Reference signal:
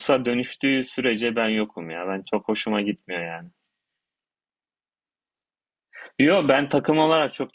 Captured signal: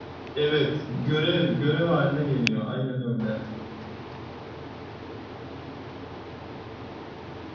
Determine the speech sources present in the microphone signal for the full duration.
user only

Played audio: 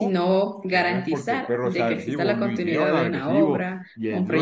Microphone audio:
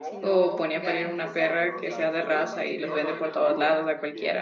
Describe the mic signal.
both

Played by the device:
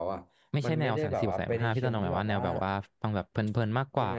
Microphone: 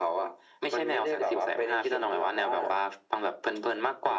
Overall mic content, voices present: echo only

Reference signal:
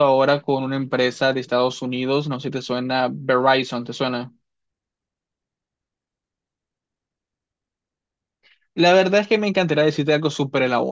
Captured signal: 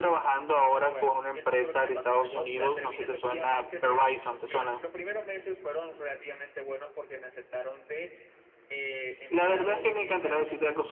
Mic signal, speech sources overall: both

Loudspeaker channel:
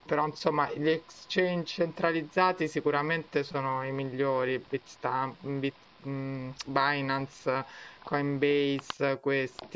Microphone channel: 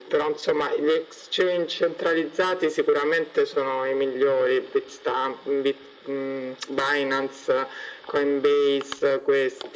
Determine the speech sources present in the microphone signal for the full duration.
echo only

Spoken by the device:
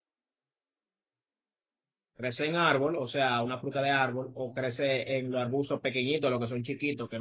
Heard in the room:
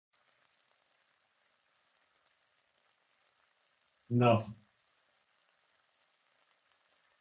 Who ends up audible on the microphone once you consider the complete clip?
user only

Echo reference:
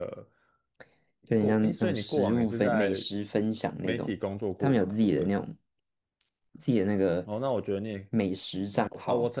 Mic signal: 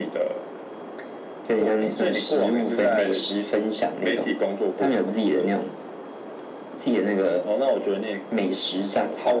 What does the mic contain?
echo only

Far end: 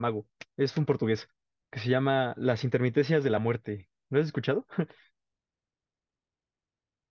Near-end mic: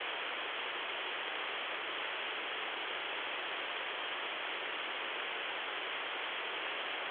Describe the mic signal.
neither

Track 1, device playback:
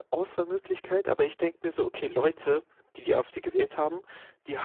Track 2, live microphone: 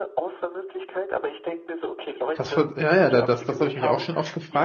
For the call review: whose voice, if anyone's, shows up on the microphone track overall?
both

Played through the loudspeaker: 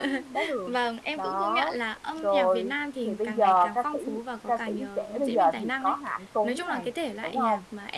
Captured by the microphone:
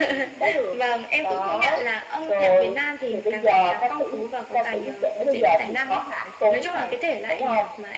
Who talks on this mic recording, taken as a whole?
echo only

